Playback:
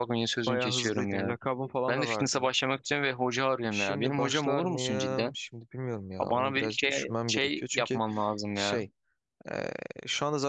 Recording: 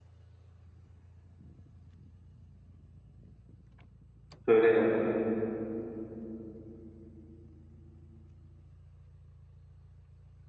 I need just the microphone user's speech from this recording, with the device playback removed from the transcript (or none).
Söyle ya.